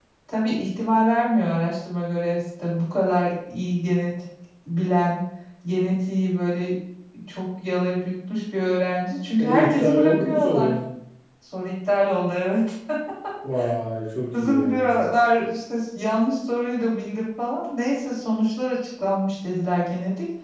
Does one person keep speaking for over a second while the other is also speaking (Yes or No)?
Yes